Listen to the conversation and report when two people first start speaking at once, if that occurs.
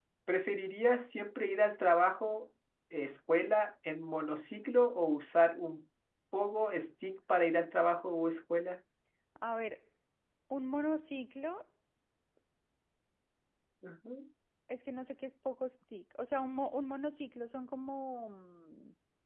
none

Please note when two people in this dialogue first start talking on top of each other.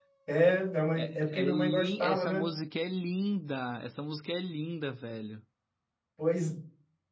0.9 s

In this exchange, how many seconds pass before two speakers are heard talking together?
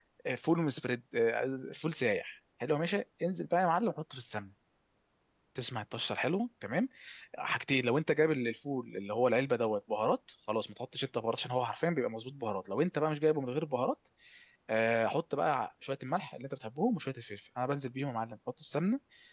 none

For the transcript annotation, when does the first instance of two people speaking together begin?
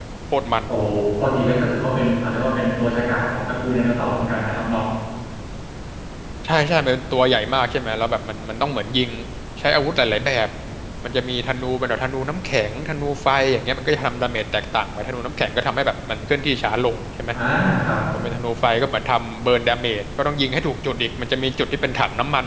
none

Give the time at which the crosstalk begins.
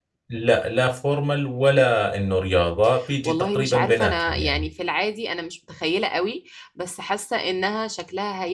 3.2 s

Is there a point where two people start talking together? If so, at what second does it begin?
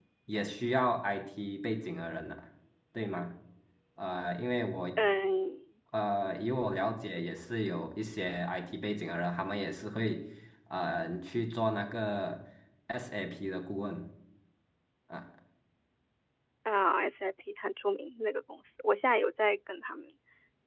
none

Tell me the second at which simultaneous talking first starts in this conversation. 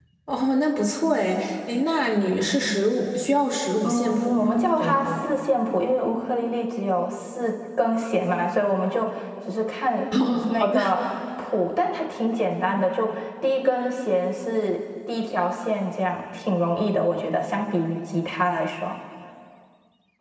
3.8 s

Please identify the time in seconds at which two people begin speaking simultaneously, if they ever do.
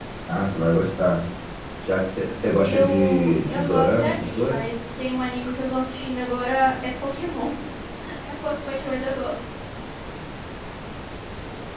2.6 s

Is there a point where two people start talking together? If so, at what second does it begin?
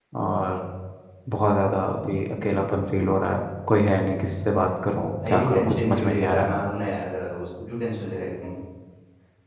5.2 s

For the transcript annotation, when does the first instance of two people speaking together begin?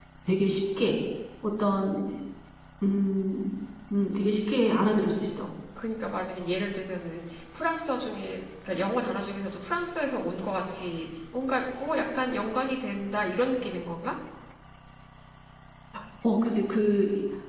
none

